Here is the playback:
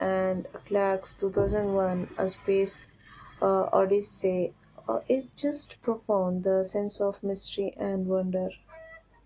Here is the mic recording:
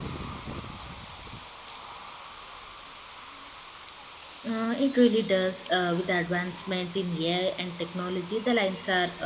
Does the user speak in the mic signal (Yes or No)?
Yes